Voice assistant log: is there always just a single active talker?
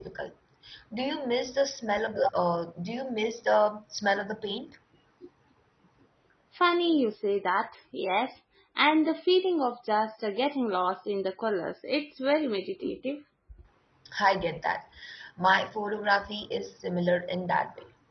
Yes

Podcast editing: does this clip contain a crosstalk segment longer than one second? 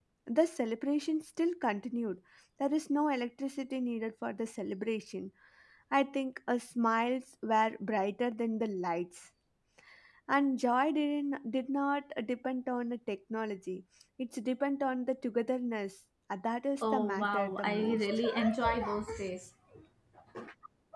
Yes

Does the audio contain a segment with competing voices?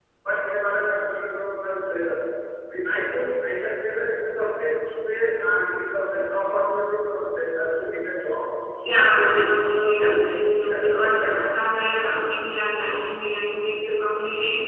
Yes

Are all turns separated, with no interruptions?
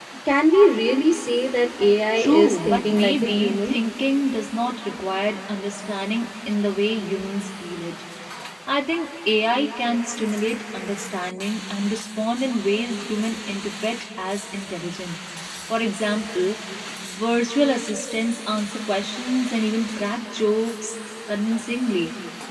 No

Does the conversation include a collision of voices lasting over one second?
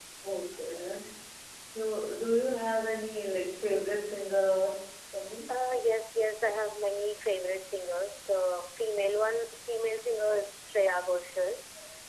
No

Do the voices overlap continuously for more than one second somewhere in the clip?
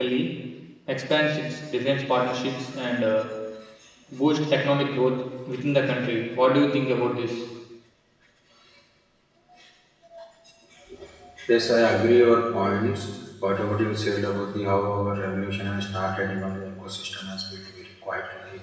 No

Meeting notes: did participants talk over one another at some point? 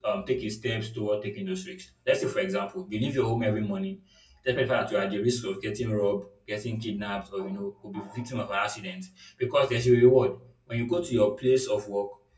No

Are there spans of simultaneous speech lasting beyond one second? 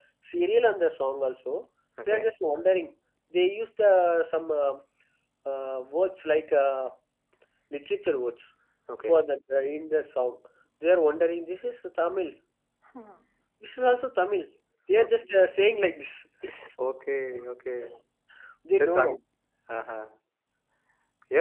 No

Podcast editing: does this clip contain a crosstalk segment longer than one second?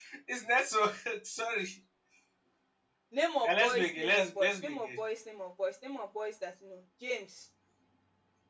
Yes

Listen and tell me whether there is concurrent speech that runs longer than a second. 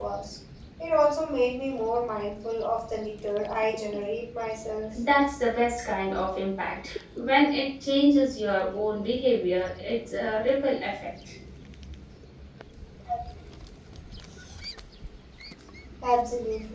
No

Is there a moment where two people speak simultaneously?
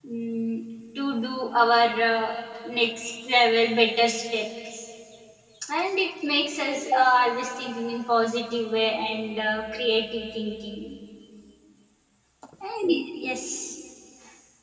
No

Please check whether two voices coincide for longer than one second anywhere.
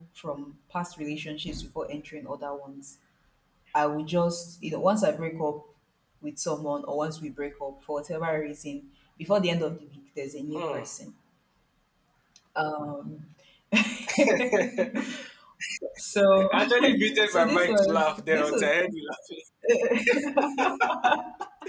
Yes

